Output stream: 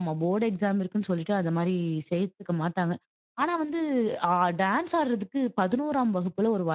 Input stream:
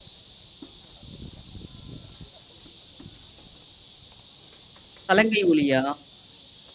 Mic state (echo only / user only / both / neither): user only